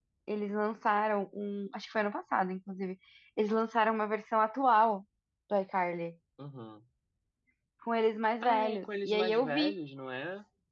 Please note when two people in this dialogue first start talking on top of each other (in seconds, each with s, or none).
8.4 s